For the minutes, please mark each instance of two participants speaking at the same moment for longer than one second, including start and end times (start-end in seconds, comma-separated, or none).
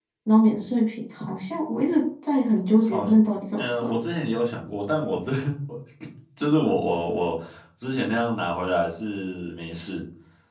none